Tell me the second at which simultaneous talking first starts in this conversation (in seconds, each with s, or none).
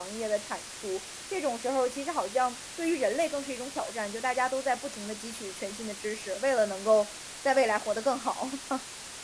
none